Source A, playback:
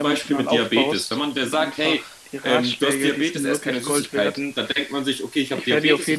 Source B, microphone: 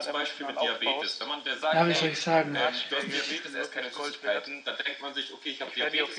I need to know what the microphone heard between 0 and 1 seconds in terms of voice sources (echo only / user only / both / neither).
echo only